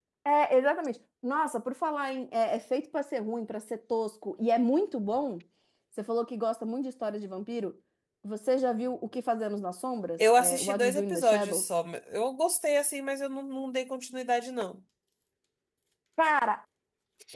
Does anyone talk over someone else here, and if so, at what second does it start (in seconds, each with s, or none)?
10.2 s